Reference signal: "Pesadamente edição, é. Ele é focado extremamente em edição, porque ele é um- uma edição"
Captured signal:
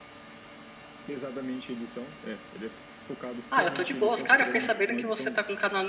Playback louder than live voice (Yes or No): No